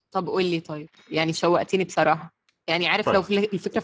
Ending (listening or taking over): listening